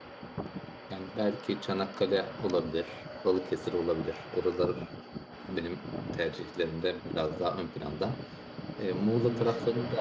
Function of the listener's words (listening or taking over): listening